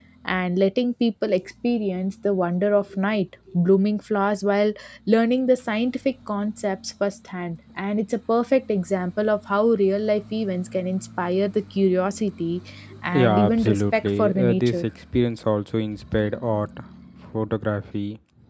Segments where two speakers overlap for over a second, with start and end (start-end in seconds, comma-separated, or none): 13.1-14.8